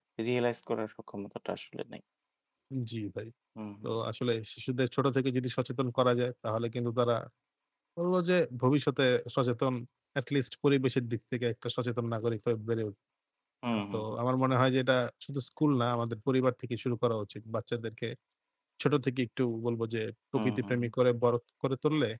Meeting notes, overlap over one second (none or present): none